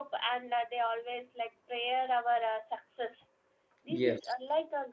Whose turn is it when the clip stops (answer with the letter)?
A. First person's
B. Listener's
A